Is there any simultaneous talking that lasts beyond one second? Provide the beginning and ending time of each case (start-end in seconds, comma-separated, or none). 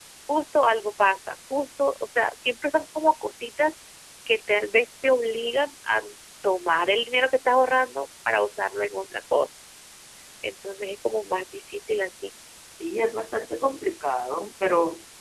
none